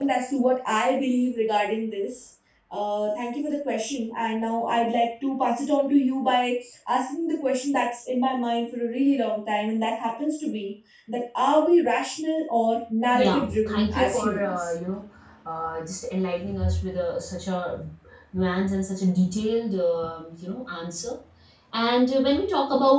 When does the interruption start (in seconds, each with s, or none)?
13.1 s